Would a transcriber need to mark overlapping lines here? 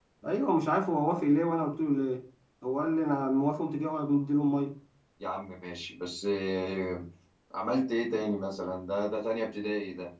No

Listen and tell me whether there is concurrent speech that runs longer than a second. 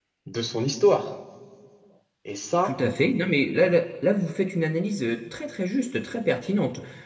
No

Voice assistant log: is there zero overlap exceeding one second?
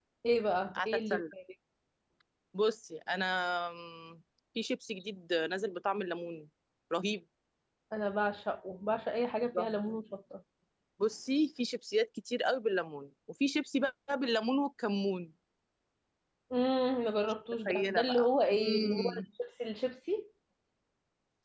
No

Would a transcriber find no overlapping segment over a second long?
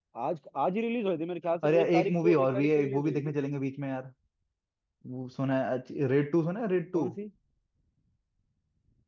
No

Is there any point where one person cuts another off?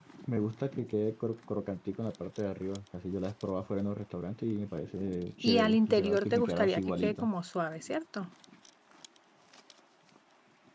Yes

